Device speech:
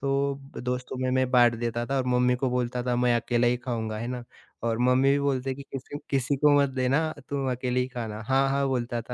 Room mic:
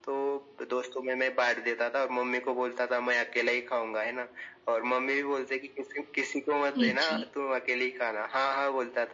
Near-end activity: present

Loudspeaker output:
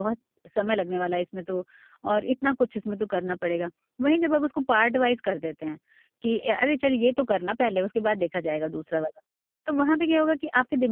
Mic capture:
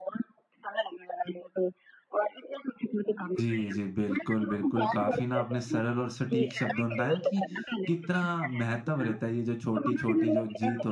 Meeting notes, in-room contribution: present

